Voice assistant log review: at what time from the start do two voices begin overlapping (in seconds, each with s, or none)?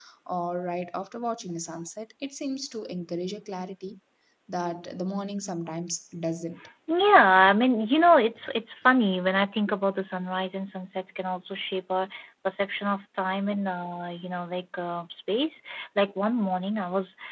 none